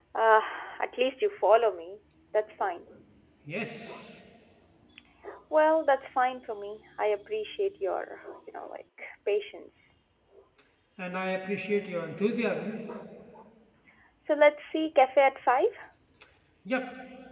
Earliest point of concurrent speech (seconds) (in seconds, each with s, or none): none